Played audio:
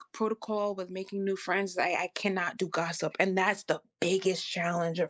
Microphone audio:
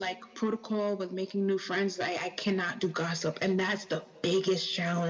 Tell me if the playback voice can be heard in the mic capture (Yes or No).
Yes